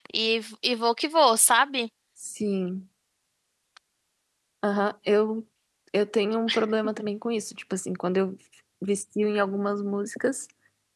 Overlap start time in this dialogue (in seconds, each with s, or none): none